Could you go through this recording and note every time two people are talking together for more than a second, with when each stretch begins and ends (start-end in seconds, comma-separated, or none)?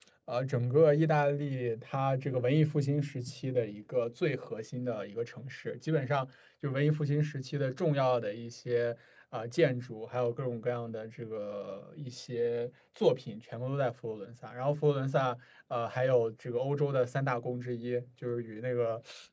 none